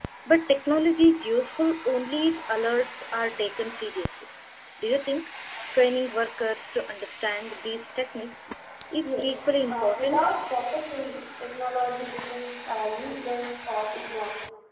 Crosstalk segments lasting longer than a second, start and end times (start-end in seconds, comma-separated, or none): 9.0-10.3